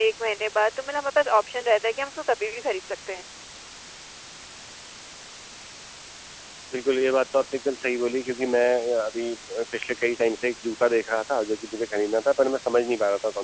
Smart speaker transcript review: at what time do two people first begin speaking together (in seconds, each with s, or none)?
none